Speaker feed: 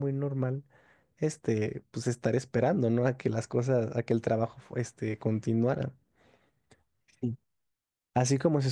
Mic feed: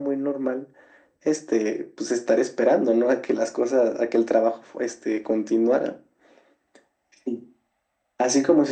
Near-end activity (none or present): none